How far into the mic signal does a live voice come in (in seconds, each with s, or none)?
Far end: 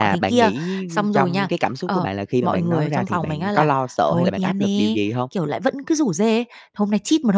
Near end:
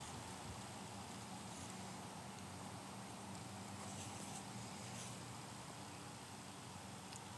none